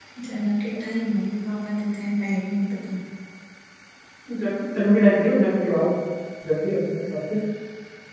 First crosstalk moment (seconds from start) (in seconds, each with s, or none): none